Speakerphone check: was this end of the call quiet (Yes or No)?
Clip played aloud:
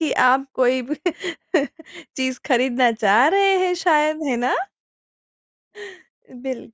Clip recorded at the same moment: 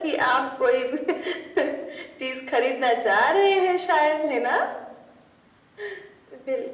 Yes